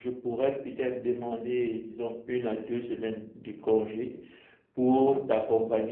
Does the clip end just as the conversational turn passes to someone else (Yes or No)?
No